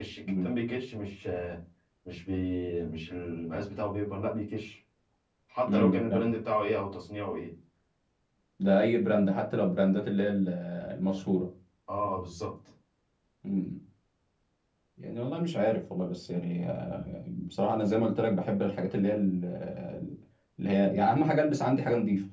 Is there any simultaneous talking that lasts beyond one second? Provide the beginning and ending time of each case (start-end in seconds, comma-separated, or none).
none